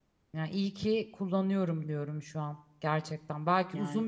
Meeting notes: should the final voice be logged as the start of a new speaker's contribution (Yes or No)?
No